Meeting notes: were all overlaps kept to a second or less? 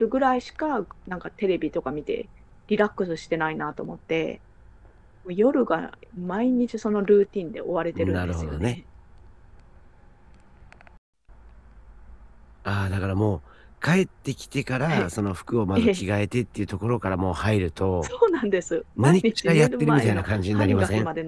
No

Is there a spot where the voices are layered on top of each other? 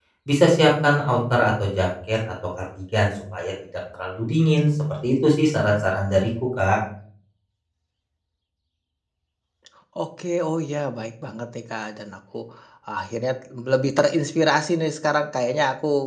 No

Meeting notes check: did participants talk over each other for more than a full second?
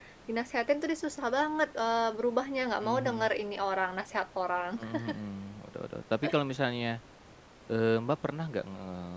No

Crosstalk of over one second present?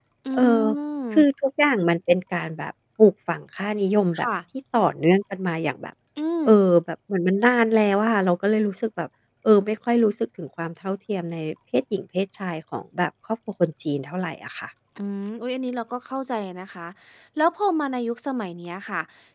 No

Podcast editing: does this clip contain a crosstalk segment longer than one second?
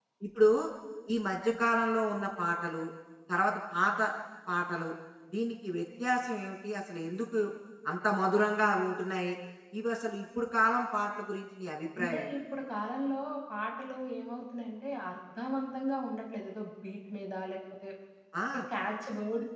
No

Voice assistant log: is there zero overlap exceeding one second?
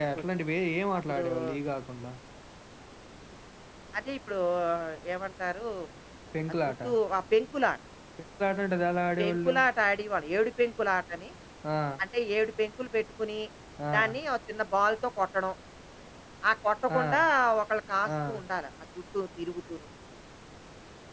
Yes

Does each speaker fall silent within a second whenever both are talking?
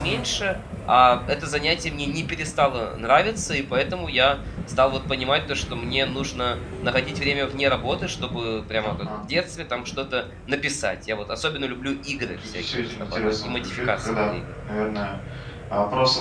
No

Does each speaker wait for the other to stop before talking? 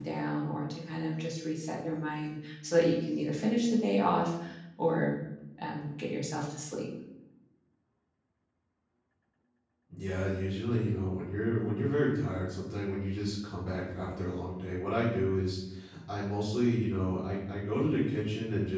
Yes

